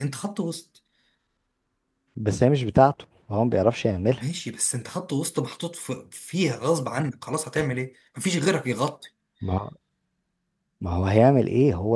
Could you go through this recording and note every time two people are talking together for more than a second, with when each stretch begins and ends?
none

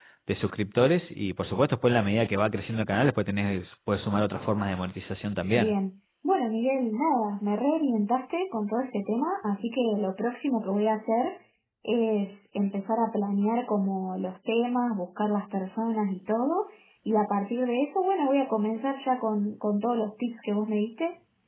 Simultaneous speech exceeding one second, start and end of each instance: none

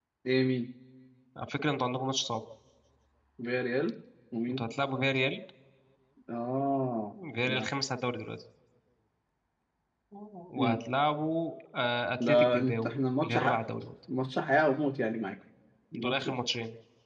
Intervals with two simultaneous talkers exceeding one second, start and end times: 12.2-13.6

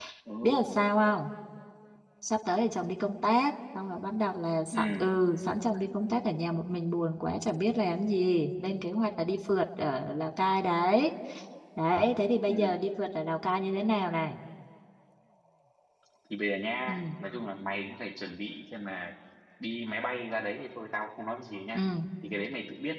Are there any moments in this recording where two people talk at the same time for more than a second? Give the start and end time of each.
none

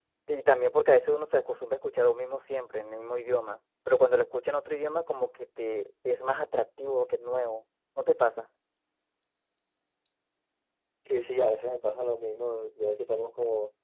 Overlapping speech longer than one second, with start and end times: none

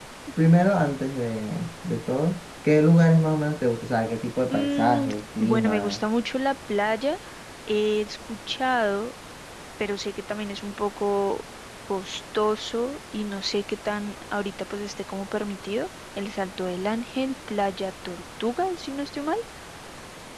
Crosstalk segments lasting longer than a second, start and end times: 4.5-6.0

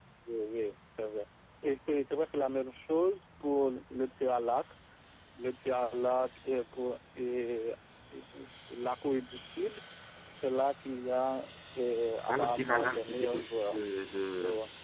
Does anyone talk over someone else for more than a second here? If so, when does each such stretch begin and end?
12.3-13.8

